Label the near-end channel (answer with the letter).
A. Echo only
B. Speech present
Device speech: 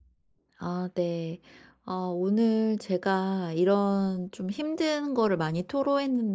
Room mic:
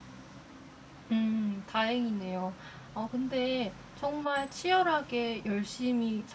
B